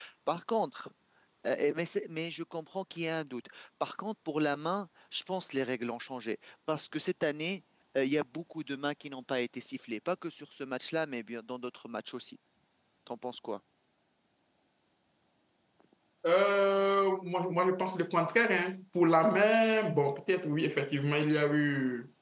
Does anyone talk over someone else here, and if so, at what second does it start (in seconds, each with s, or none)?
none